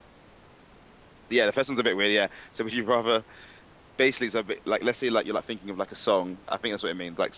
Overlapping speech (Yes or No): No